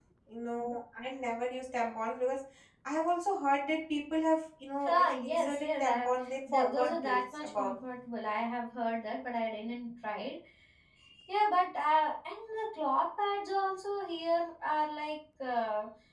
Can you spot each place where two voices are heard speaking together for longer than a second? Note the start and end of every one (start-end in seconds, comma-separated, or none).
4.9-7.7